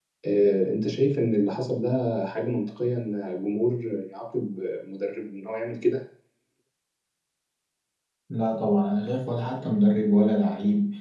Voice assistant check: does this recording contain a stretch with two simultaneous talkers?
No

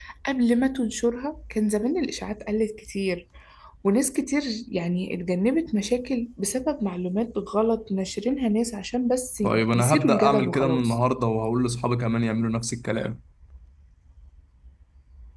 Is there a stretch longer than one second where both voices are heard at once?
Yes, from 9.4 s

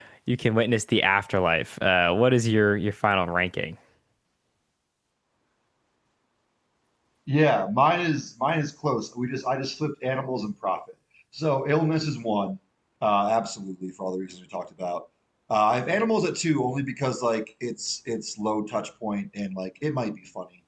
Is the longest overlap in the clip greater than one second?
No

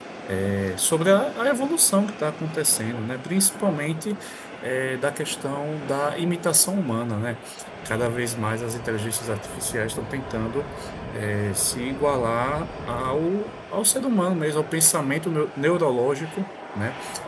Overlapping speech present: No

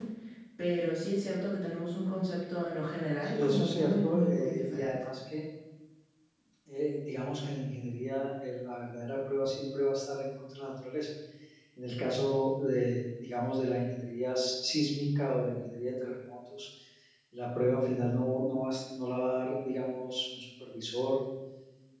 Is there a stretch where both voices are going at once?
Yes, from 3.2 s

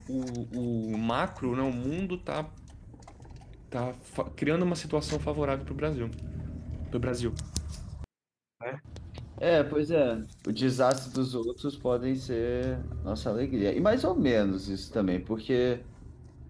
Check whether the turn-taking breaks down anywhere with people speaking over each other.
No

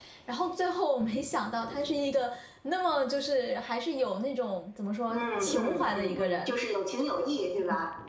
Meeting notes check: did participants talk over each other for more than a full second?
Yes, from 5.1 s

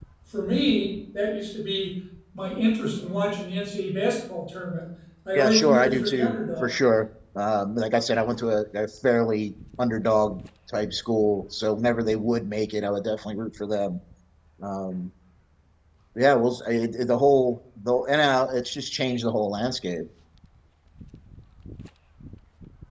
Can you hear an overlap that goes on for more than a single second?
Yes, from 5.4 s

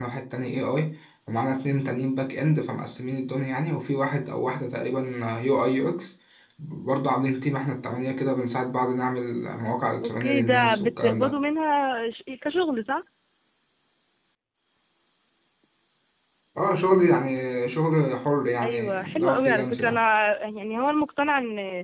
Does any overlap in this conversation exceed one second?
Yes, from 10.0 s

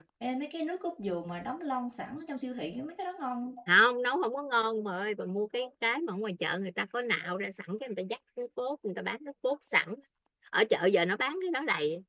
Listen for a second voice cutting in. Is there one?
No

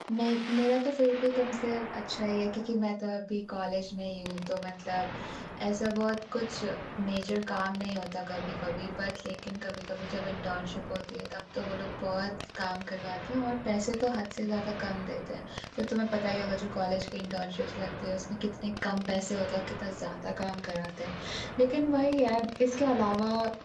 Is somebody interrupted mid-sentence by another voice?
No

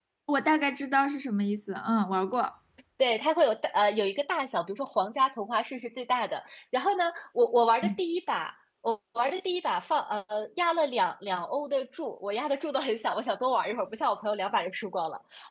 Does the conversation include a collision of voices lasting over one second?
No

